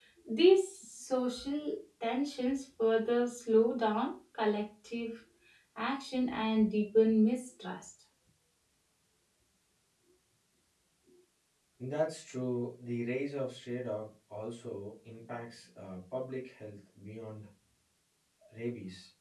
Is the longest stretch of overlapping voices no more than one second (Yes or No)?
Yes